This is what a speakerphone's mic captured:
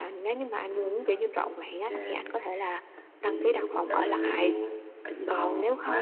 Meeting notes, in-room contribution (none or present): present